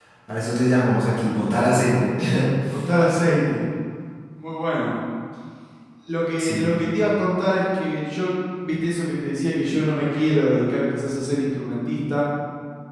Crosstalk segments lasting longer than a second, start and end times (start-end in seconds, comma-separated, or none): none